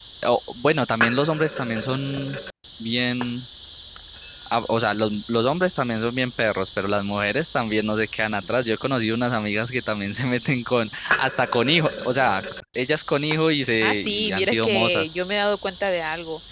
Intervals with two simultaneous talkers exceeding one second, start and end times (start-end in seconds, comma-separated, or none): 13.9-15.2